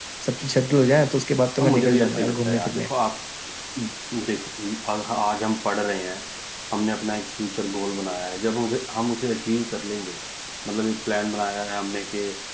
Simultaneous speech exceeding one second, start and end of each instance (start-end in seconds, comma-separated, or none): 1.6-2.9